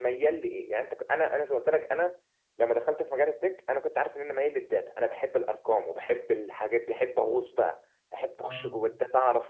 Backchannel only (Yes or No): Yes